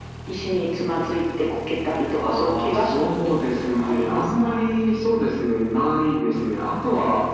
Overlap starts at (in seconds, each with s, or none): 2.1 s